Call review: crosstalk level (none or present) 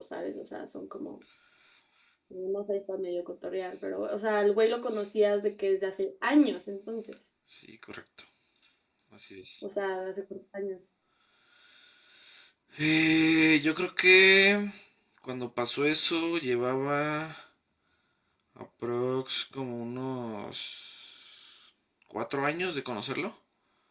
none